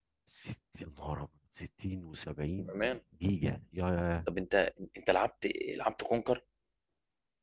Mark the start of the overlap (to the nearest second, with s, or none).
none